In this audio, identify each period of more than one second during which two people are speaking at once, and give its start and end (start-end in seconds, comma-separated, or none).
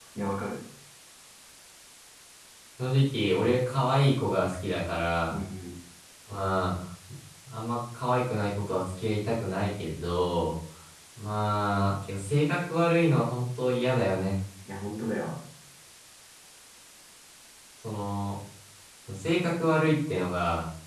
none